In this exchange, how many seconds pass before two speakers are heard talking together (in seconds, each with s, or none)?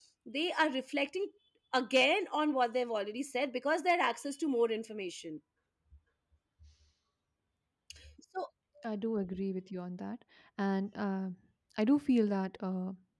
none